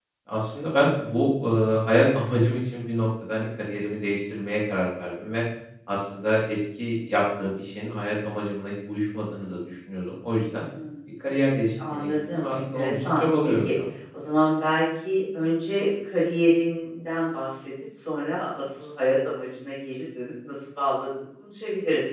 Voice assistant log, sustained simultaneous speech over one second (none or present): present